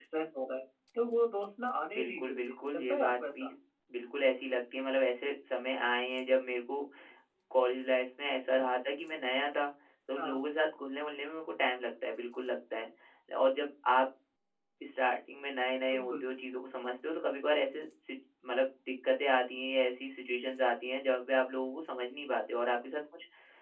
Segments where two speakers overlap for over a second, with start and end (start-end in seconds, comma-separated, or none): 1.9-3.5